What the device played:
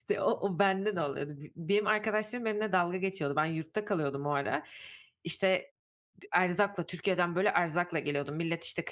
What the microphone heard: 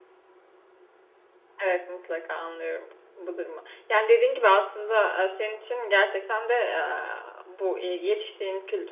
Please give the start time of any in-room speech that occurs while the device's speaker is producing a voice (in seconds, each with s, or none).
1.6 s